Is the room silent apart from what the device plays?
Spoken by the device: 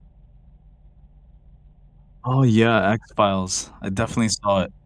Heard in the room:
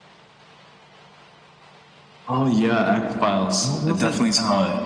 No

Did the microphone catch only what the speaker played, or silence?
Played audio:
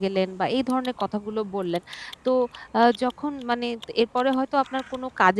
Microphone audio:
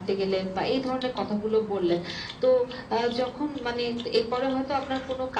Yes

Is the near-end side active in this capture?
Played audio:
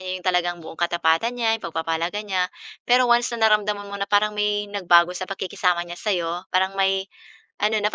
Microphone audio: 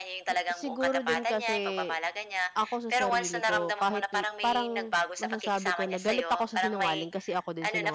Yes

